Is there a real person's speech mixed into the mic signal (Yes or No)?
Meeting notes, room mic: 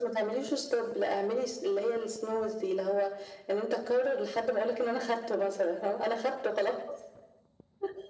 No